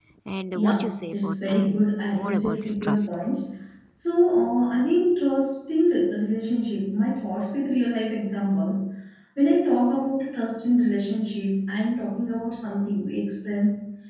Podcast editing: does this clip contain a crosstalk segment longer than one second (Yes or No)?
Yes